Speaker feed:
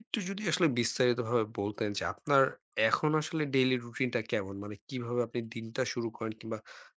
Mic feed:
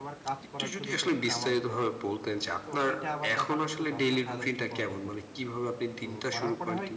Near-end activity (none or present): present